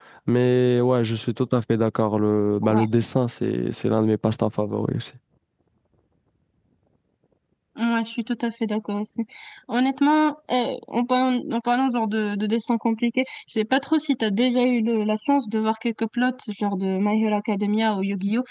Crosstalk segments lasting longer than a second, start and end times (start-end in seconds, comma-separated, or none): none